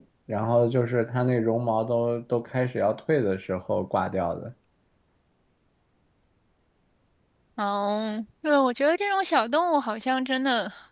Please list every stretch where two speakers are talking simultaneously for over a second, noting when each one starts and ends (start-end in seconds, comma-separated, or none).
none